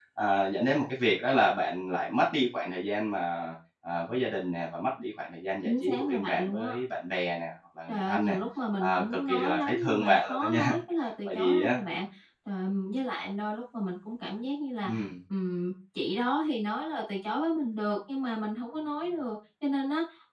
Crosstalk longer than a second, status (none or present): present